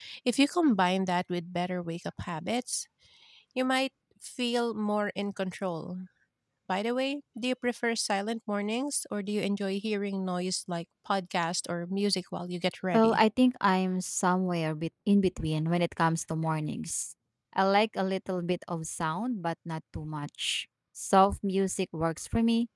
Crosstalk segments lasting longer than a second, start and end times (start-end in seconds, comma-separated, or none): none